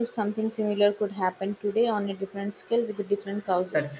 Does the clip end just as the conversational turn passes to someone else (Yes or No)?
Yes